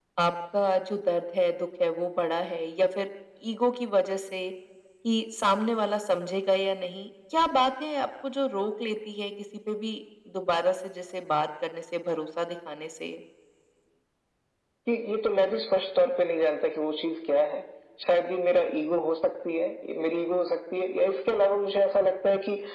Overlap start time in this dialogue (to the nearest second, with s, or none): none